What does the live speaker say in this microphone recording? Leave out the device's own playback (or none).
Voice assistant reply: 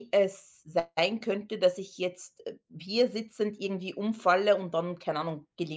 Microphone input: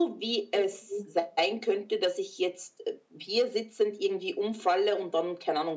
mhm,